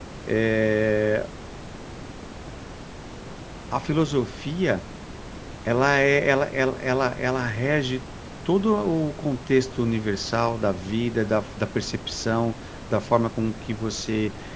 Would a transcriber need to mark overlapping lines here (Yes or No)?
No